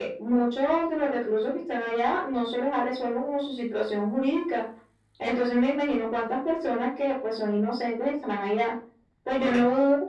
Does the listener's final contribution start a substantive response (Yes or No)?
No